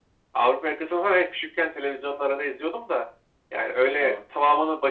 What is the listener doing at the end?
listening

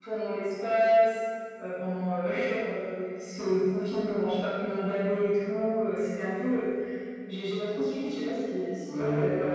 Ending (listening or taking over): taking over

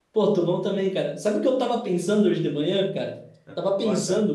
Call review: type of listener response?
listening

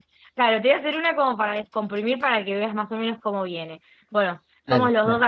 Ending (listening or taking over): listening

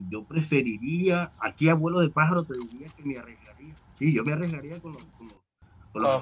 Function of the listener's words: taking over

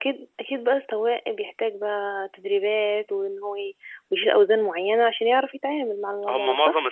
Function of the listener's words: taking over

